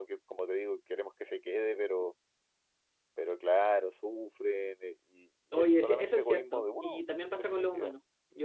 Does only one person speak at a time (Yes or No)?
No